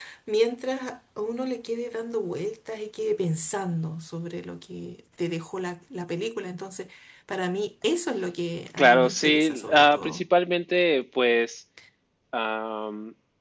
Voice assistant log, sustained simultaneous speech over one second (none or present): present